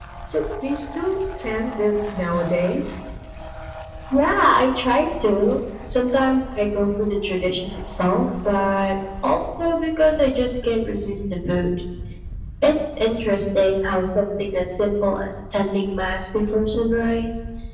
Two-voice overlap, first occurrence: none

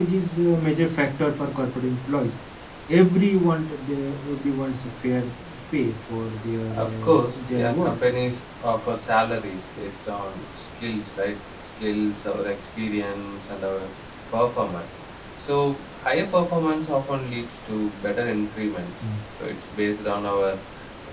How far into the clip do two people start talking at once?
6.7 s

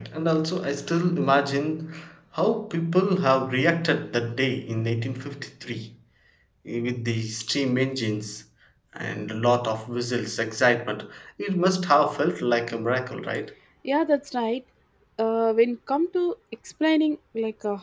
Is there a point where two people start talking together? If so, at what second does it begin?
none

